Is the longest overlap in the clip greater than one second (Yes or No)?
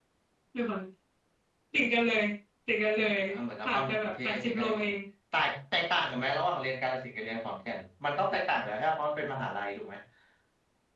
Yes